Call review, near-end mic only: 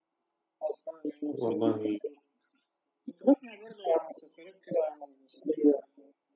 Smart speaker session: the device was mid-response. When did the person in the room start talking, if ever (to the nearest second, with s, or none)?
1 s